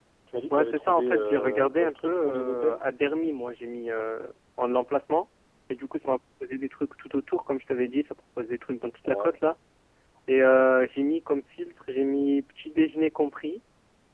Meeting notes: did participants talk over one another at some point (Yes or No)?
Yes